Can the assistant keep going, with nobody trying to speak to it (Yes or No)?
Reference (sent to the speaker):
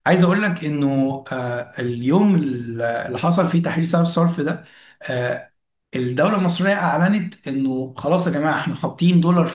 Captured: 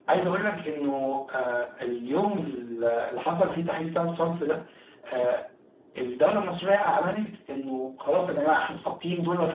Yes